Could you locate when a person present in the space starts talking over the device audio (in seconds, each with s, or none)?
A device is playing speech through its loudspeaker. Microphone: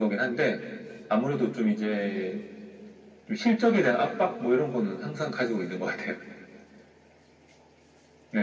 none